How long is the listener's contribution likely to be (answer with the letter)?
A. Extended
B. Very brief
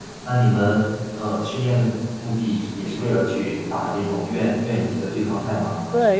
A